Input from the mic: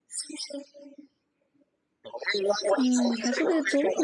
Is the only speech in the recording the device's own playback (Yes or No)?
No